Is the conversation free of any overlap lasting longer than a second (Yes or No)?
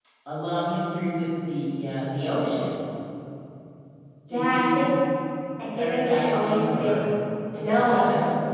No